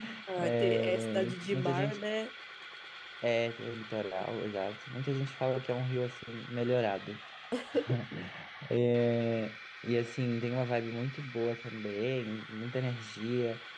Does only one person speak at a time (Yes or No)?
No